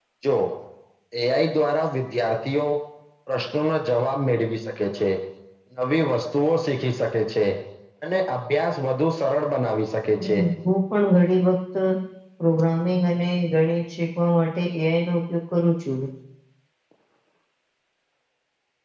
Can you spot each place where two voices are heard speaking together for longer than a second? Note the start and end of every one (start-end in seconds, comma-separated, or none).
none